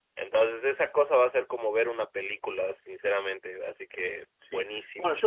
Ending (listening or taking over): taking over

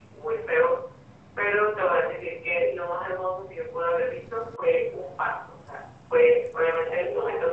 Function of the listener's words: listening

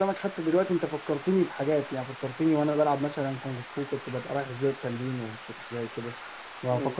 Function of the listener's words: listening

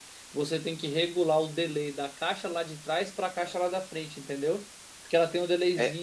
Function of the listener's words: listening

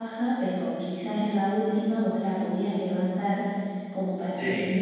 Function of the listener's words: listening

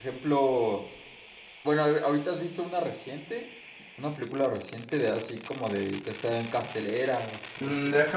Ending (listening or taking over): taking over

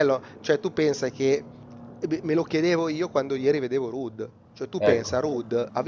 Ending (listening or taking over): listening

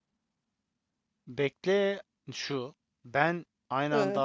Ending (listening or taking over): listening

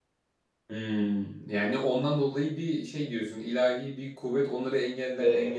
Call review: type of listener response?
taking over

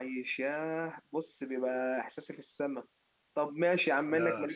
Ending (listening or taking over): listening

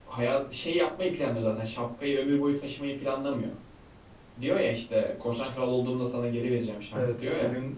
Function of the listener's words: taking over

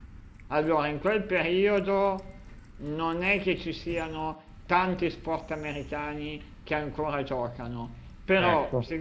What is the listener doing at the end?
listening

